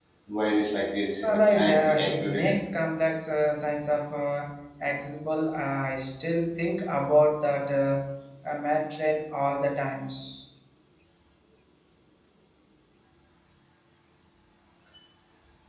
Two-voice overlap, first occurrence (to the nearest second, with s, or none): 1 s